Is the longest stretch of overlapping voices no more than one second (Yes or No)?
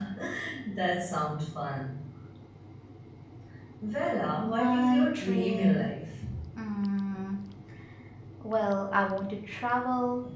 No